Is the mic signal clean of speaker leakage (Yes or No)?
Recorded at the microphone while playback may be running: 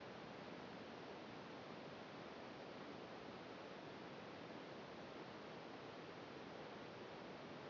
Yes